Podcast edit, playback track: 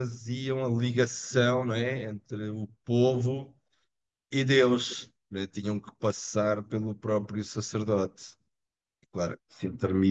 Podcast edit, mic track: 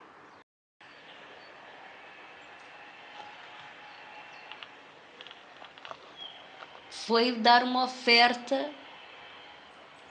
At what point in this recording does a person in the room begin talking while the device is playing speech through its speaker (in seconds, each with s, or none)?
6.9 s